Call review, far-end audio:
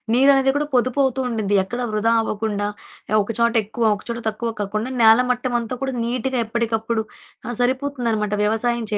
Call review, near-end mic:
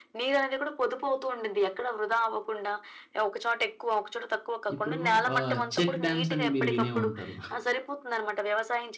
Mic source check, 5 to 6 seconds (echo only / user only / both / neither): both